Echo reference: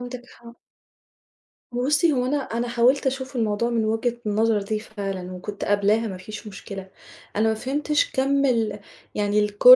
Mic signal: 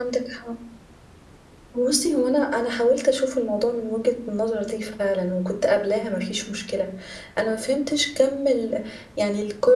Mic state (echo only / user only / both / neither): echo only